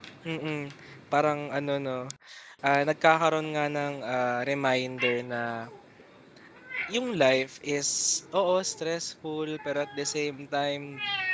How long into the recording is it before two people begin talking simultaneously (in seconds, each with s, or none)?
none